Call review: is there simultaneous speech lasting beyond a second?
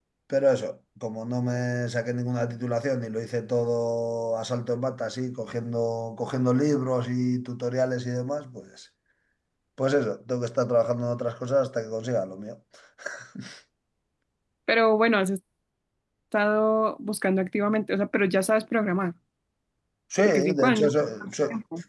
Yes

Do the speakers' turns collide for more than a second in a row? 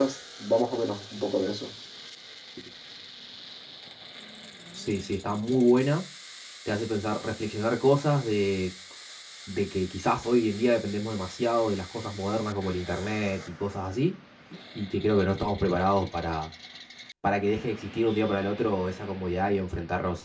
No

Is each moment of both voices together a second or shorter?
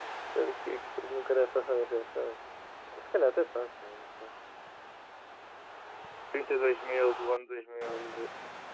Yes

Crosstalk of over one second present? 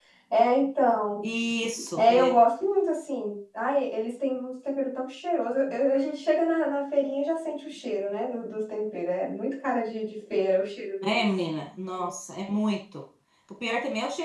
No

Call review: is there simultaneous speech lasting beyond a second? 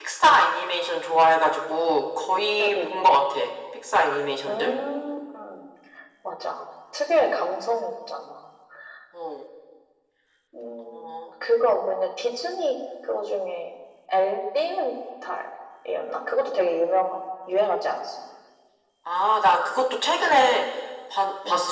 No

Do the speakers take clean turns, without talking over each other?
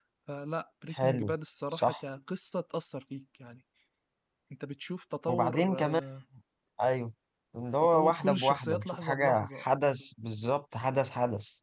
No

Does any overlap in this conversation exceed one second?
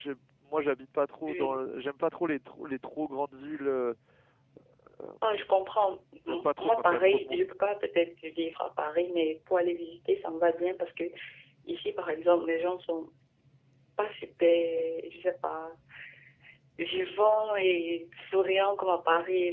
Yes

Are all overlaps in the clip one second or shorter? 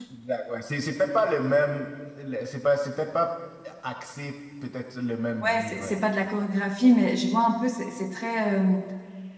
Yes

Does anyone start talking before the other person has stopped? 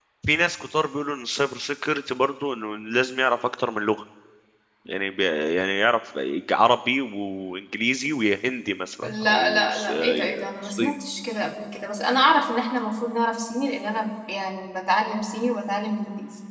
Yes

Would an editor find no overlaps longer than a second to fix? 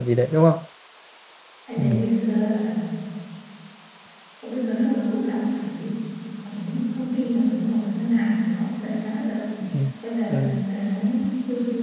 Yes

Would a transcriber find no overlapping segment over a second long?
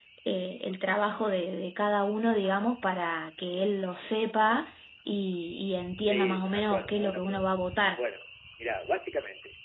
No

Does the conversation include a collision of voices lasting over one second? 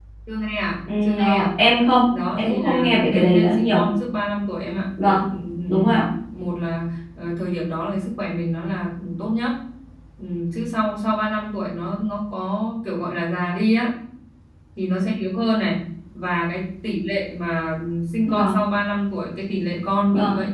Yes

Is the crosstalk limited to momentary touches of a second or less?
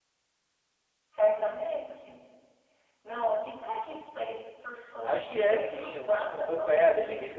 No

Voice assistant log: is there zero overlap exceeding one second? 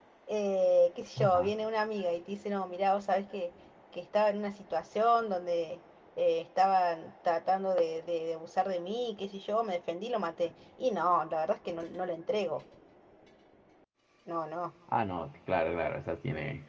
Yes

